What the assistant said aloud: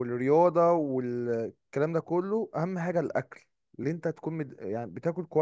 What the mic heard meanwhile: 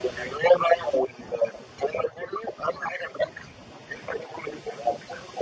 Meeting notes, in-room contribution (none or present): none